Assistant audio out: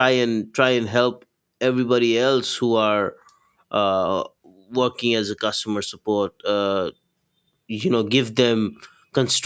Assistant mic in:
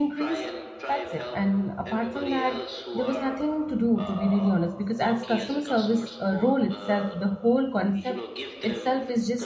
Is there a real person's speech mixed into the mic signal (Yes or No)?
Yes